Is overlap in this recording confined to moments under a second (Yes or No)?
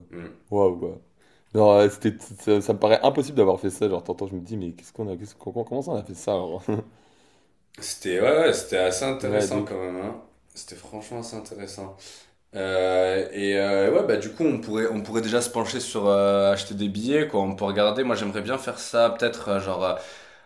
Yes